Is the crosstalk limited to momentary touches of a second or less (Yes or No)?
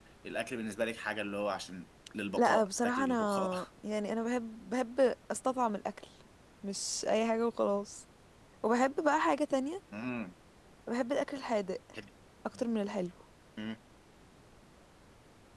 No